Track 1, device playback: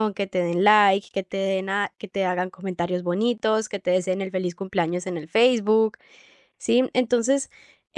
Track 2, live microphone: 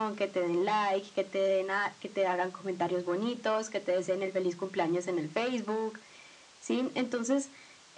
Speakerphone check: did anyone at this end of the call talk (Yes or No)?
No